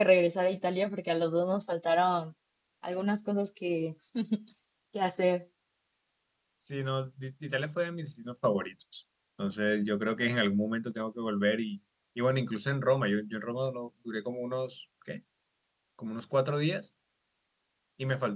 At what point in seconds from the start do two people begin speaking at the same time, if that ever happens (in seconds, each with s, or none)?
none